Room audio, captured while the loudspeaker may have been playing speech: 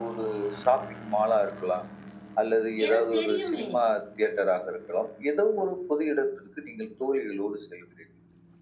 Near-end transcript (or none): ஏன்னா தெரியுமே.